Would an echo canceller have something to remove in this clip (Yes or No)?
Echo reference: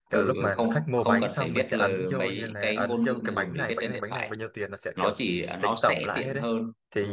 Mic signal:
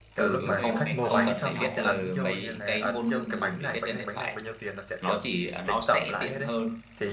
Yes